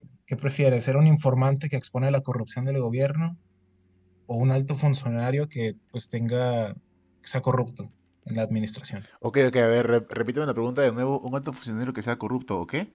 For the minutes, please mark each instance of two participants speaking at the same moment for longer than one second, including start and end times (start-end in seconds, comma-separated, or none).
none